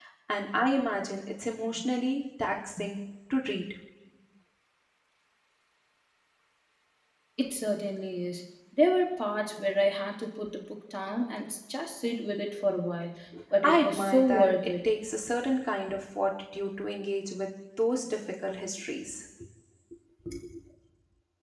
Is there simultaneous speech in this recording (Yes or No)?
Yes